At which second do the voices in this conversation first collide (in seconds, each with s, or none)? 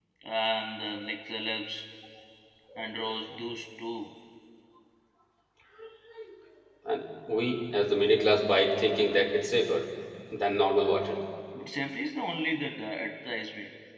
none